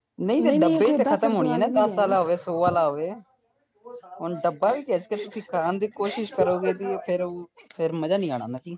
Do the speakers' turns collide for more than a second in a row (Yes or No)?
Yes